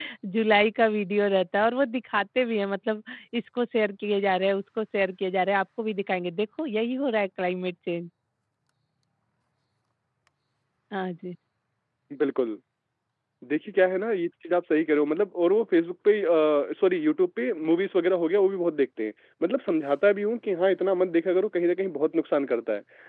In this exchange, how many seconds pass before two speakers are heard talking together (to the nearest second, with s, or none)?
none